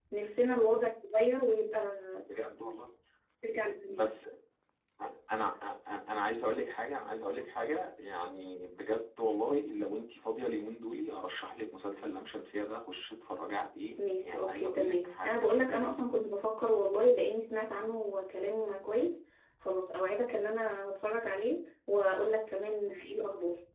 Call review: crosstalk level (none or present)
present